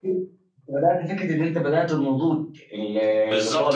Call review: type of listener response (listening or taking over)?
taking over